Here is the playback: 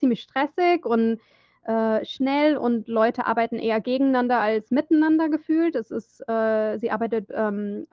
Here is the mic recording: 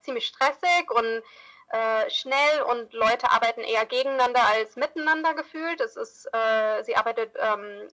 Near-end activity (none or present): none